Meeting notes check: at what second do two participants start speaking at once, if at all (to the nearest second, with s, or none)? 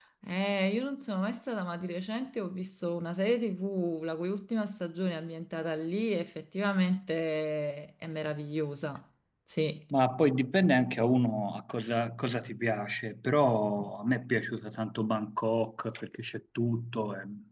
none